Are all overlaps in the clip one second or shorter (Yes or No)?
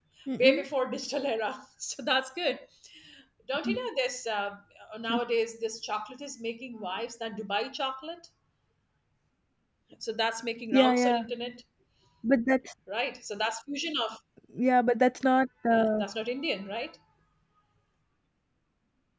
Yes